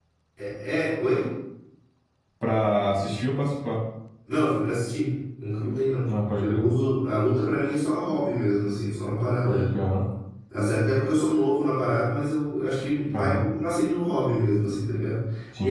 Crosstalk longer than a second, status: none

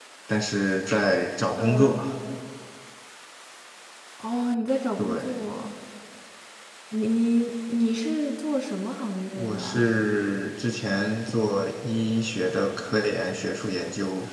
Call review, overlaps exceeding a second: none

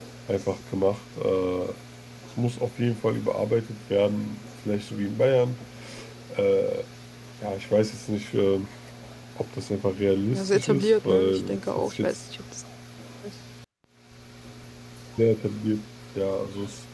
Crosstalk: present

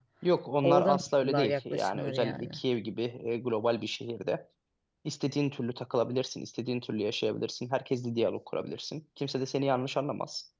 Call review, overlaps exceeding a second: present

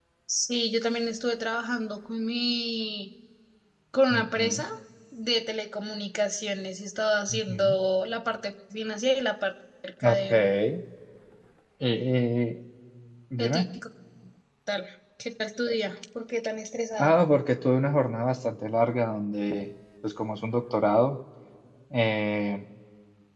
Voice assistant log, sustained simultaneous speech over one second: none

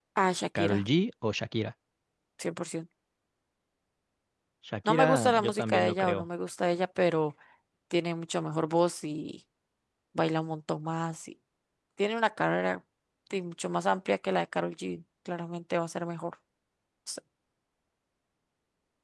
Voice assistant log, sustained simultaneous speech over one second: present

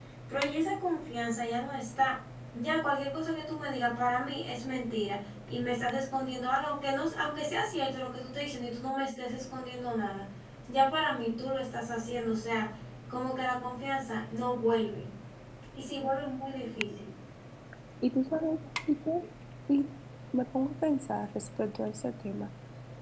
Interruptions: none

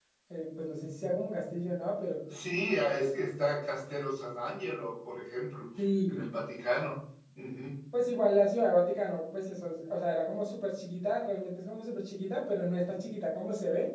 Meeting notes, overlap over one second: none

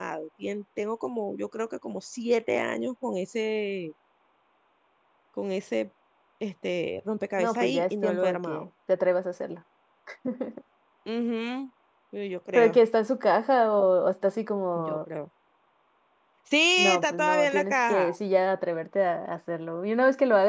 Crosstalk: present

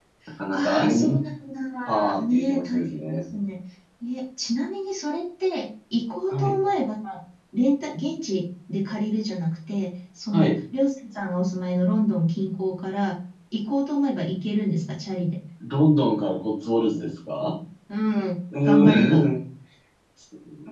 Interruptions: present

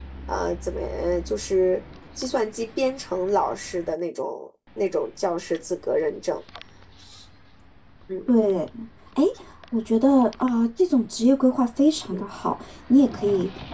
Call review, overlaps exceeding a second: none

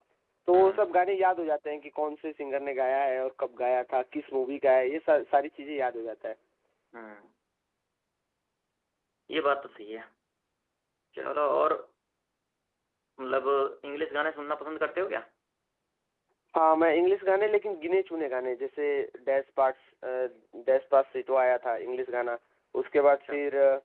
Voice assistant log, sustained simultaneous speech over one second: none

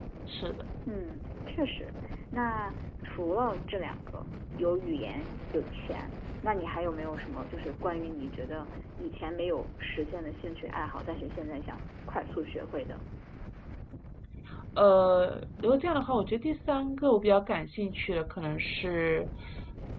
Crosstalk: none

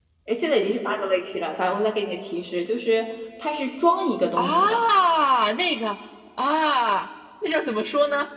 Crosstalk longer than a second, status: none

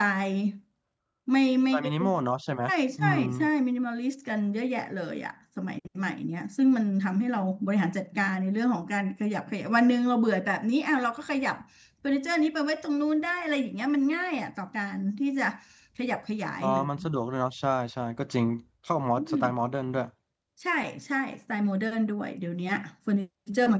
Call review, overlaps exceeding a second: none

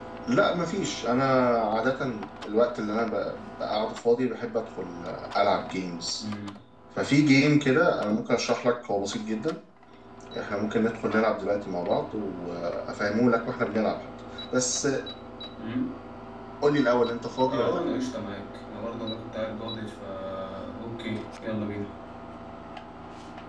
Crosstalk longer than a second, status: none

